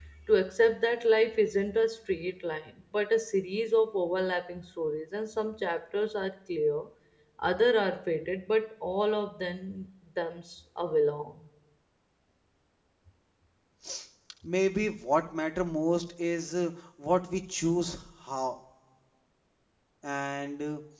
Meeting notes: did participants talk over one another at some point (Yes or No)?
No